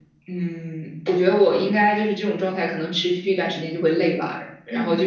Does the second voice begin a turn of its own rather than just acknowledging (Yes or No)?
No